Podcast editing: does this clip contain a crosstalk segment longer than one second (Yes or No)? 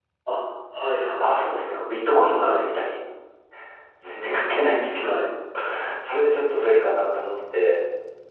No